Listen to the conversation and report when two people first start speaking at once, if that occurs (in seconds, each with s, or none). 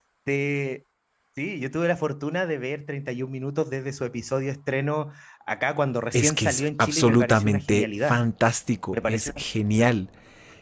6.1 s